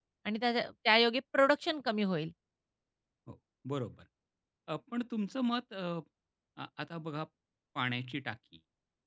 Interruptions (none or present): none